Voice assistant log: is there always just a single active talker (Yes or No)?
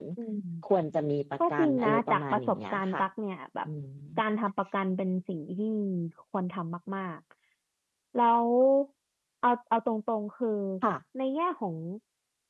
No